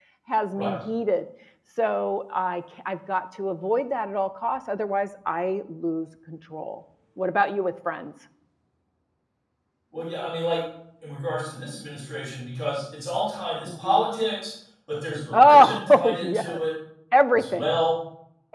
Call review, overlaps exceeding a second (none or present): present